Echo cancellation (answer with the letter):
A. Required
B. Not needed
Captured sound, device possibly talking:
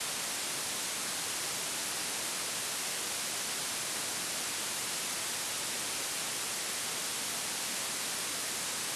B